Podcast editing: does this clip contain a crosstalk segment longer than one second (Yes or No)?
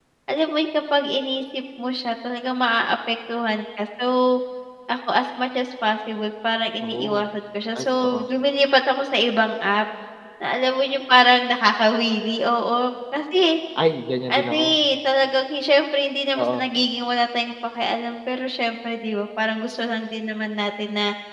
No